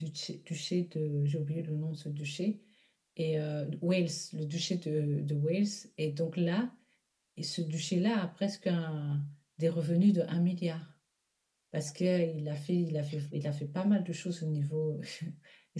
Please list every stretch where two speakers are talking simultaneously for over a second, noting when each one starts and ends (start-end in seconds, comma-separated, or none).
none